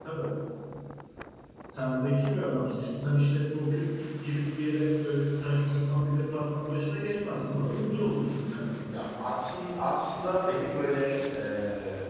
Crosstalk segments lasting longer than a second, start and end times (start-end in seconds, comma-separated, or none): none